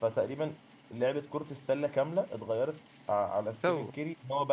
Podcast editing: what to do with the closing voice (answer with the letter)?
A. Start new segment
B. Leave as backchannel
B